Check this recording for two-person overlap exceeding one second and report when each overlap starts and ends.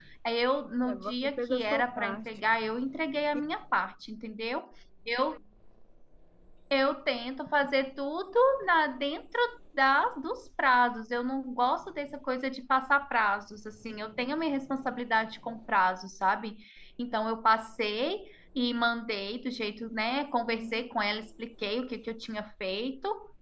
0.9-2.2

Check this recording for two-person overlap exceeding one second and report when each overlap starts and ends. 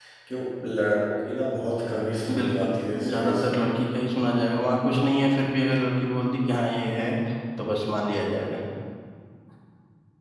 2.3-3.6

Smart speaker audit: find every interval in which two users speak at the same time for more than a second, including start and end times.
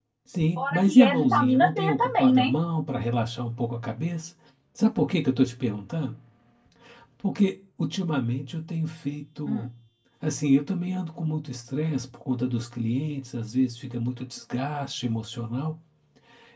0.6-2.5

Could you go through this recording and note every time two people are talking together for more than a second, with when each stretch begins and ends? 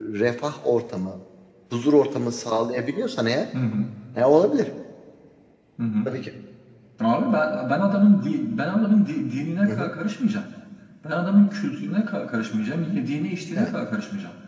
none

